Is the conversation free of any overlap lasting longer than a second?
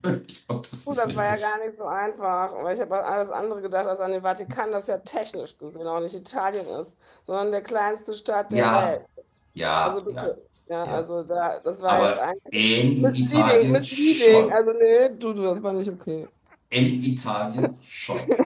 No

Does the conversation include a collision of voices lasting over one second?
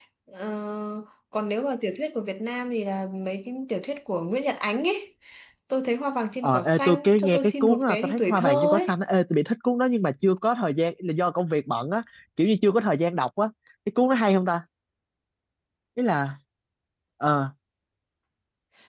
Yes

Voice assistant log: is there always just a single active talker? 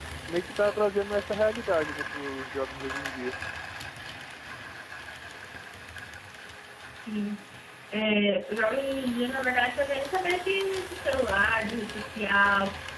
Yes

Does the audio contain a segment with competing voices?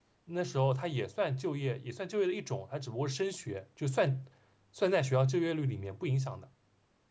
No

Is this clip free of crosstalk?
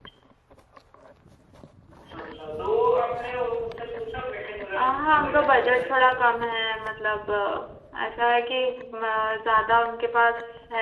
No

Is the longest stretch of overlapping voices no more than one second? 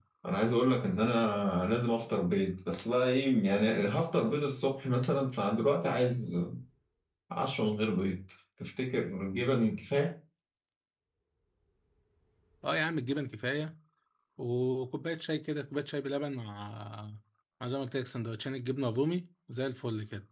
Yes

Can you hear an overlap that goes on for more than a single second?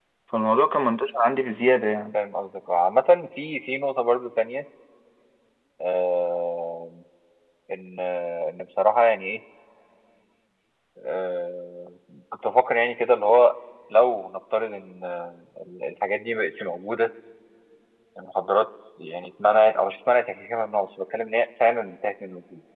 No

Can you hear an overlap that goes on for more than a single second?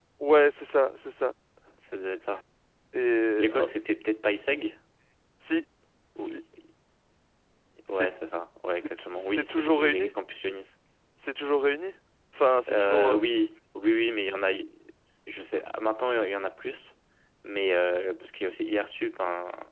Yes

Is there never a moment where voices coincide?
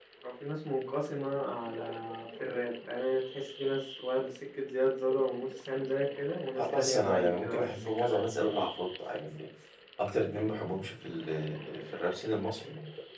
No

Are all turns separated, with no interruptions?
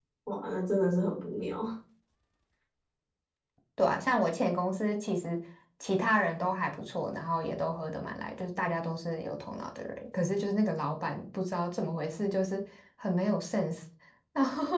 Yes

